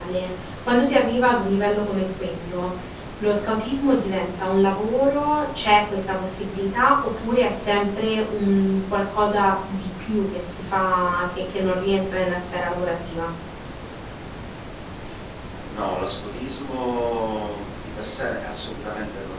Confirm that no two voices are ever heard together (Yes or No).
Yes